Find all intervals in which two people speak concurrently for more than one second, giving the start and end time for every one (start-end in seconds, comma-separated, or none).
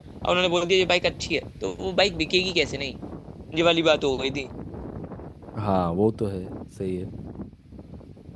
none